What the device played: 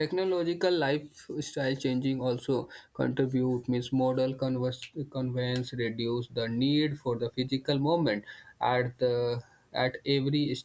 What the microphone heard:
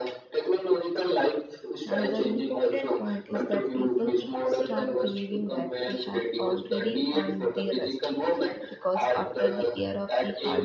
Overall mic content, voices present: both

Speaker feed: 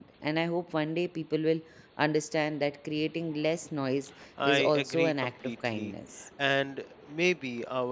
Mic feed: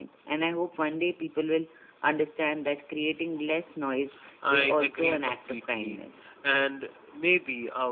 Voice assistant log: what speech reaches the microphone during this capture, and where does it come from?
echo only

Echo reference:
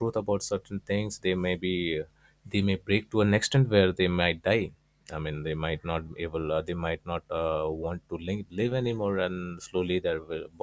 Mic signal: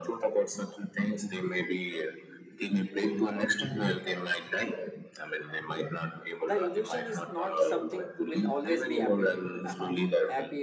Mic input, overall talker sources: both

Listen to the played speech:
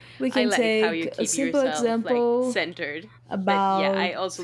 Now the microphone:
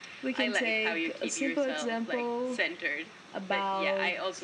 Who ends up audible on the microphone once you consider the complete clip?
echo only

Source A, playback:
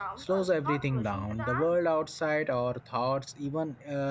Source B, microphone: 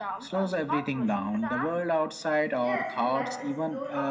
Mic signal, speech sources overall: both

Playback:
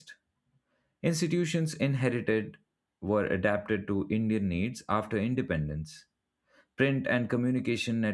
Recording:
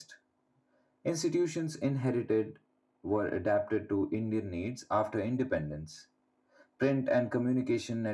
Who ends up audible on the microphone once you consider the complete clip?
echo only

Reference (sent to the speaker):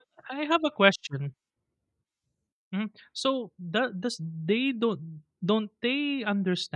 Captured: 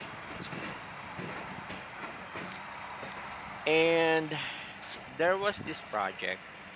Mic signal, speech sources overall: user only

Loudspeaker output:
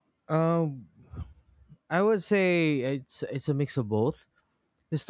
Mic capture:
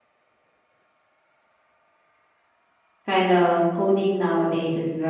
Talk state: user only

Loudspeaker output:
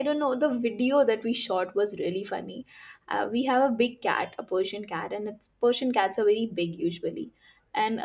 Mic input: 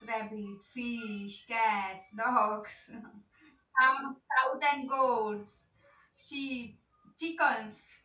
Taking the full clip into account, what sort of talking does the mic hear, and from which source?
user only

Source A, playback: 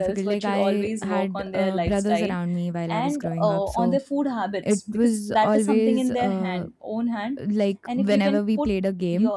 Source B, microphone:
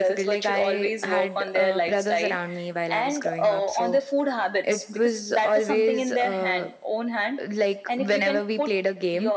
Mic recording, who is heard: echo only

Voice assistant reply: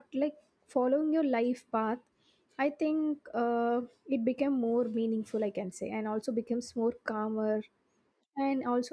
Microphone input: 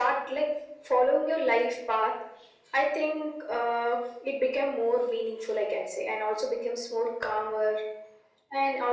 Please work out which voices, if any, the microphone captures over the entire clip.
echo only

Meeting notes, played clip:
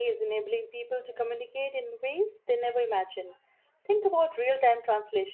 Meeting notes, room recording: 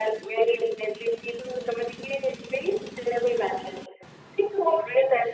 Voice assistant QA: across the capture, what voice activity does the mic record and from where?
echo only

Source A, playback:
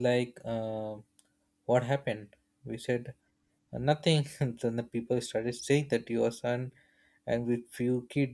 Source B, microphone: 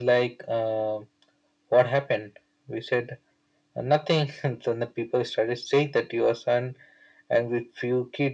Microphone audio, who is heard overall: echo only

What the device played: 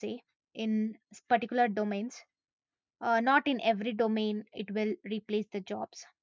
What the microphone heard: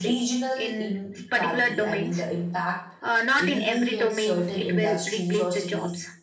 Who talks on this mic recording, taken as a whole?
both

